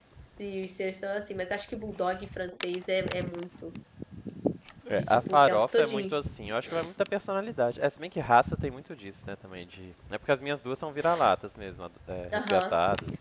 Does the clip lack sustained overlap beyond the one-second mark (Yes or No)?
No